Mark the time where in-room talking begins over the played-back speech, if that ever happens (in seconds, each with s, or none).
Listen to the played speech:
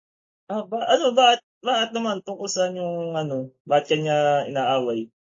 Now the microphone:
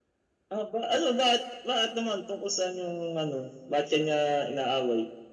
none